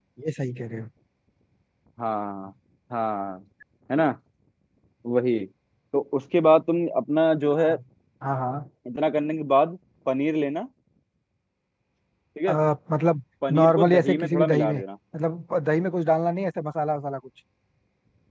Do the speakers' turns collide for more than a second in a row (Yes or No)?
Yes